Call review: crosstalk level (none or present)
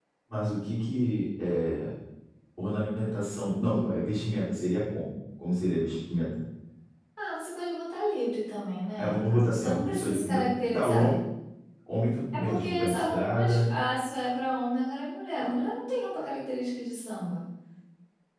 present